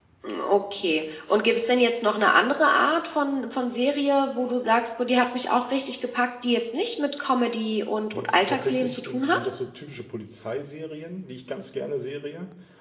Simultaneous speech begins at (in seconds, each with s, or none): 8.1 s